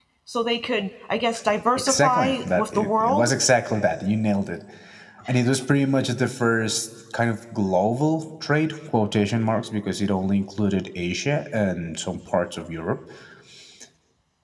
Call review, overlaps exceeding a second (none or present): present